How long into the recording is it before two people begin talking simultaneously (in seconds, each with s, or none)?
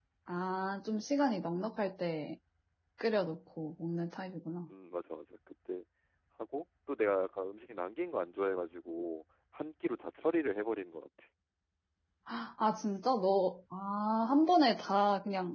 none